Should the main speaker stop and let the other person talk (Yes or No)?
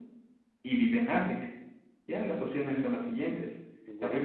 No